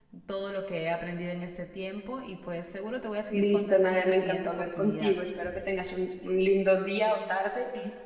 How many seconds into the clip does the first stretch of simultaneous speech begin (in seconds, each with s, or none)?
3.3 s